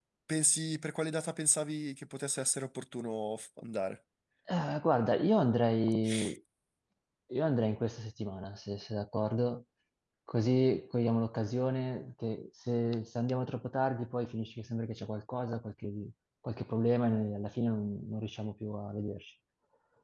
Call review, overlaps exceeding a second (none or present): none